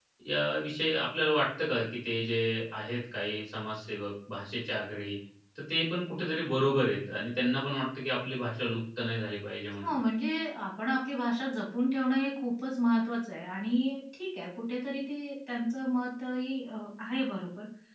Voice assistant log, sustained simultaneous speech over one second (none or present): none